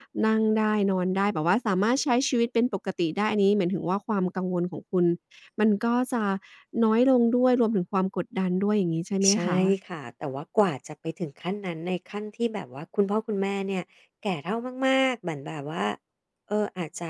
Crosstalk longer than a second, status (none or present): none